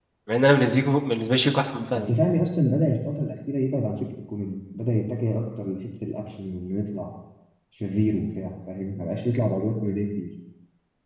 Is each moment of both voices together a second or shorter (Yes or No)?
Yes